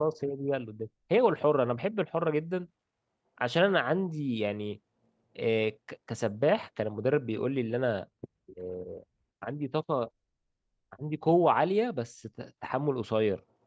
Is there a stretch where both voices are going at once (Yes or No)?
No